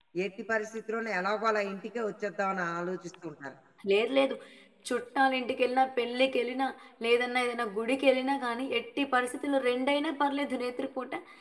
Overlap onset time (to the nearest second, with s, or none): none